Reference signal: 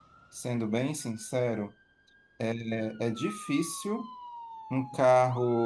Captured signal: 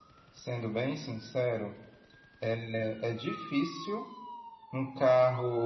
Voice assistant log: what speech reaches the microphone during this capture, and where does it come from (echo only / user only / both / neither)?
echo only